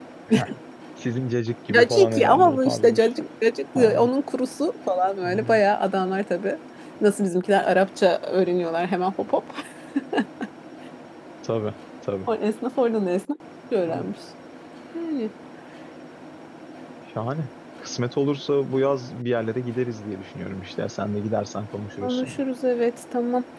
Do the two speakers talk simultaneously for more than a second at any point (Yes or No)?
Yes